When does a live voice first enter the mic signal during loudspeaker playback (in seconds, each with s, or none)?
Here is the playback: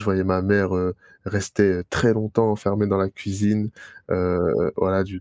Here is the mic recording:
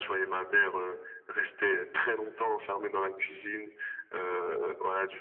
none